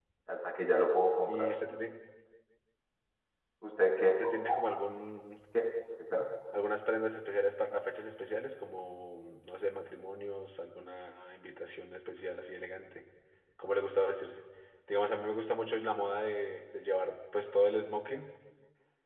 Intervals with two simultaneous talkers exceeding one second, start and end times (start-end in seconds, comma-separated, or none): none